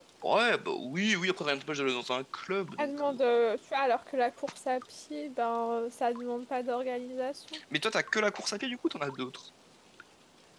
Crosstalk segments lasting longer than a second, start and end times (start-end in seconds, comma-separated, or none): none